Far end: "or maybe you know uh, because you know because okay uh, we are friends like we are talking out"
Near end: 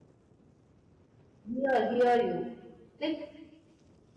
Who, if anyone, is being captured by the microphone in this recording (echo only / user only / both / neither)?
user only